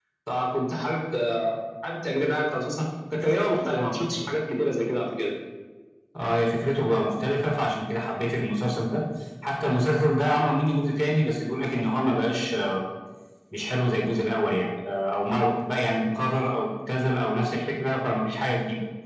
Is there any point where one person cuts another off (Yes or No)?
No